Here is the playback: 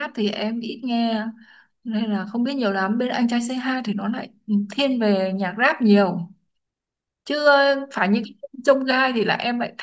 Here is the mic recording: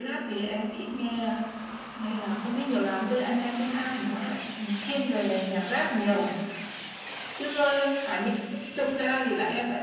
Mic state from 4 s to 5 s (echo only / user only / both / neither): echo only